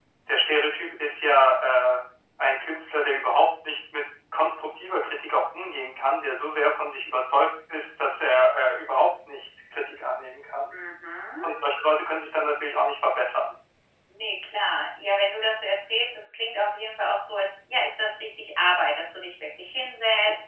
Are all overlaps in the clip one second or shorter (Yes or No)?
Yes